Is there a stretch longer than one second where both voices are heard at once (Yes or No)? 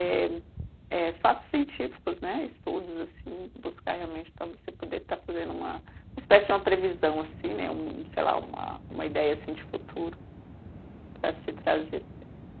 No